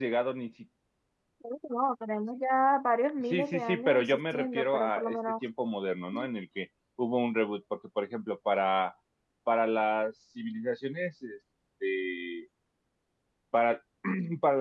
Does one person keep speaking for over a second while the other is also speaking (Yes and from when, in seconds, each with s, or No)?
Yes, from 3.3 s